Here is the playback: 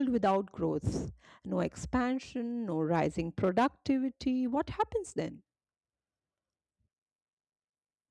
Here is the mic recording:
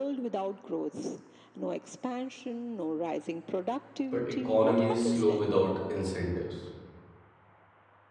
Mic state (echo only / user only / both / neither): both